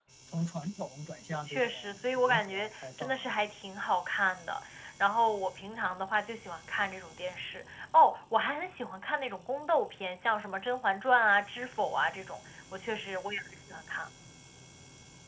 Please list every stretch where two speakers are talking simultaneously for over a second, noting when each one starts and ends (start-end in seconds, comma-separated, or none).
1.4-3.3